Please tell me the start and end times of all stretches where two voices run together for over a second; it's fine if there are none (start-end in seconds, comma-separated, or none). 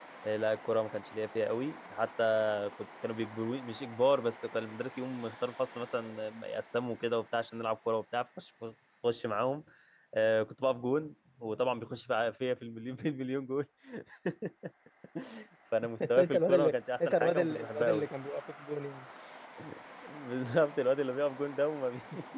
16.0-18.1